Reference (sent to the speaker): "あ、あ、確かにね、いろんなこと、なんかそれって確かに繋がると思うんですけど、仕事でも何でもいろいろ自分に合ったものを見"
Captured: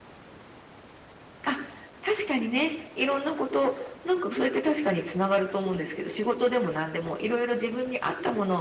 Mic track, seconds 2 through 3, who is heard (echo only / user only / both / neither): echo only